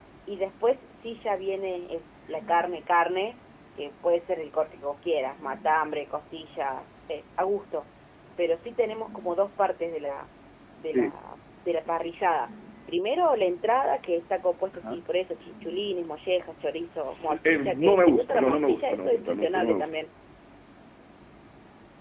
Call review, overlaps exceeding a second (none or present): present